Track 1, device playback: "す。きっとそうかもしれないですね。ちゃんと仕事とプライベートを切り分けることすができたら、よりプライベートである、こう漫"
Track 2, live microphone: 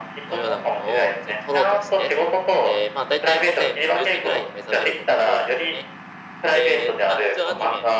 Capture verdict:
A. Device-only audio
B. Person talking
B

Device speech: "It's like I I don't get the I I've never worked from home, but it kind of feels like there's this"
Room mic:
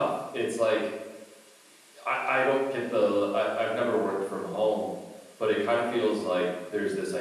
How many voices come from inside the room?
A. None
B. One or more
A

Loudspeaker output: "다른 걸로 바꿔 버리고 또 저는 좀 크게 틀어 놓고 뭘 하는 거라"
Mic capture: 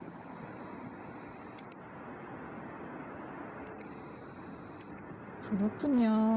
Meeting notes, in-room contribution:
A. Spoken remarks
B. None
A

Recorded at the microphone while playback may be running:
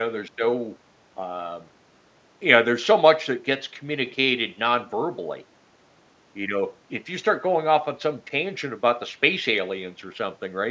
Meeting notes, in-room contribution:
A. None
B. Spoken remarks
B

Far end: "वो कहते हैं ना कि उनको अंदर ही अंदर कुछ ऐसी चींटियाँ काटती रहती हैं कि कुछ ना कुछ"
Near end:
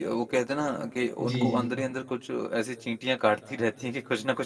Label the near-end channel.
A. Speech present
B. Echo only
A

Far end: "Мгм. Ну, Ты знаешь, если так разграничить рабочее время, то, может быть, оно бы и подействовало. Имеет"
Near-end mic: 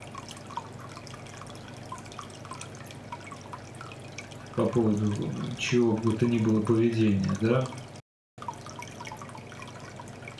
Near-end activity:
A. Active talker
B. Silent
A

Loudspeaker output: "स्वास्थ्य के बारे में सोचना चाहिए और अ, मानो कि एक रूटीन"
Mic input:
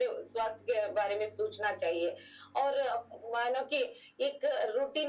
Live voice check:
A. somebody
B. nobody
B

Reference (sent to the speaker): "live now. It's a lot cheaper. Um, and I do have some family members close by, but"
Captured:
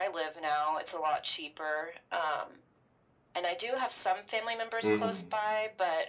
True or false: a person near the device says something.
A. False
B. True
B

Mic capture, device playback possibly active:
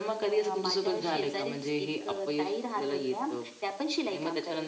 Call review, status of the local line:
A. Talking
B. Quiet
B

